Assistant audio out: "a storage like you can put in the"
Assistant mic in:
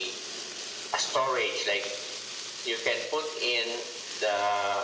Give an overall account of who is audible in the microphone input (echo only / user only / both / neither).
echo only